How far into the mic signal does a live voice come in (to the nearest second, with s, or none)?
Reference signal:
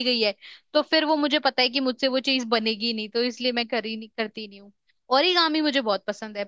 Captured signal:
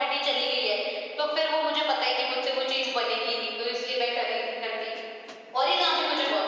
none